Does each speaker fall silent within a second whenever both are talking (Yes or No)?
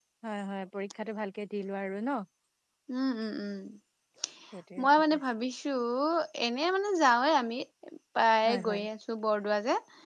Yes